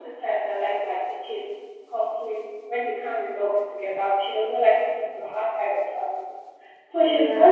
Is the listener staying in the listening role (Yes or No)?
Yes